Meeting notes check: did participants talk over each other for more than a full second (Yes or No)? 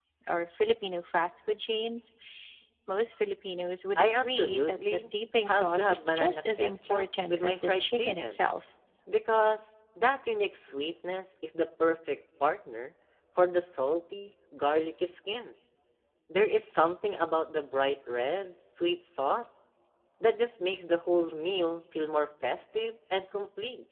Yes